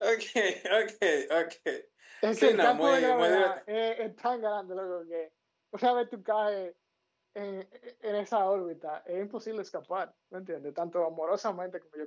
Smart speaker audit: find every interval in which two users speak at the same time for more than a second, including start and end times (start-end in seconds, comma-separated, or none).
2.3-3.6